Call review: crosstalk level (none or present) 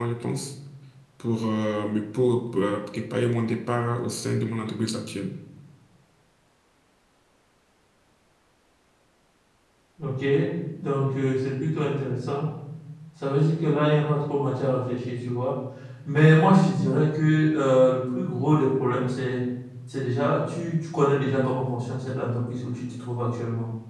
none